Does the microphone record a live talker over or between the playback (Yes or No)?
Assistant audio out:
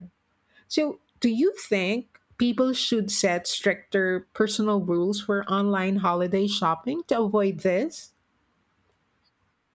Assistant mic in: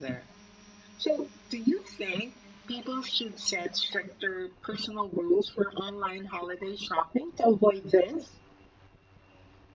No